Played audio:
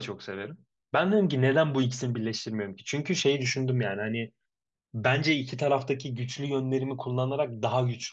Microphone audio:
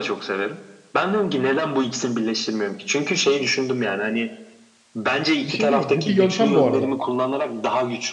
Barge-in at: 5.4 s

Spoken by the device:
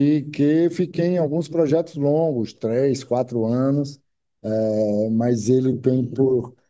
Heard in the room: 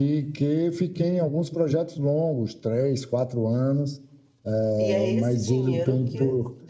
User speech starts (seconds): 4.8 s

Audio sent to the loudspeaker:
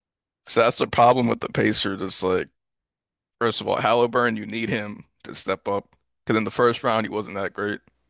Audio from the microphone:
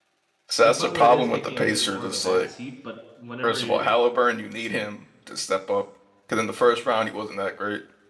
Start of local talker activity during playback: 0.6 s

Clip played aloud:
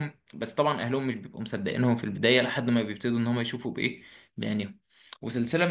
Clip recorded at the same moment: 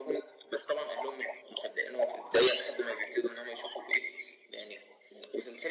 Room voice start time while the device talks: none

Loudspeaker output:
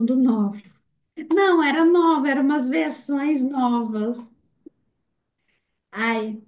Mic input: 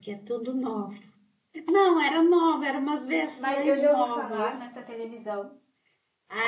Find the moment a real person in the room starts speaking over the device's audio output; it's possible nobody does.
3.3 s

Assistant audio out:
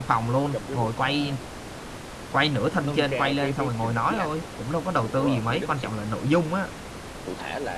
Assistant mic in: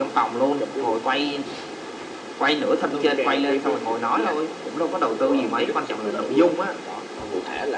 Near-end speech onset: 6.0 s

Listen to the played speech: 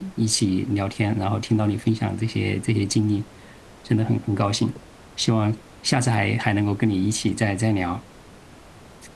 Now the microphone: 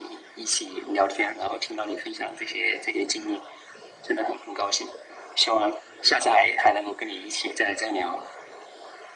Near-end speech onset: none

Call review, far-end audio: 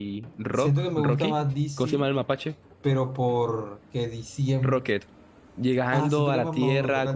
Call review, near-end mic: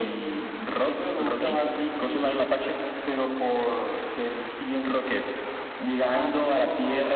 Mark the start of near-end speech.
none

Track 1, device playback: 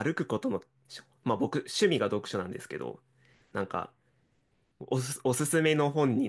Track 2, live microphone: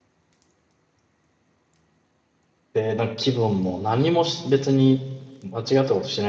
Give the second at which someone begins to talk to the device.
2.8 s

